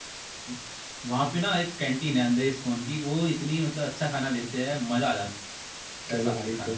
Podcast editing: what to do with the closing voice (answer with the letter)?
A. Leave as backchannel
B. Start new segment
B